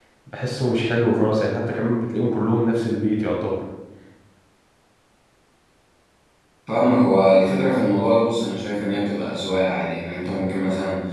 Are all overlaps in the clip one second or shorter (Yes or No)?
Yes